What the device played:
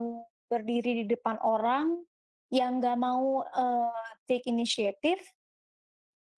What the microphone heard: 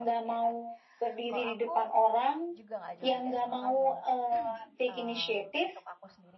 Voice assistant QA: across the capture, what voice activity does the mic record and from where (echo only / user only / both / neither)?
both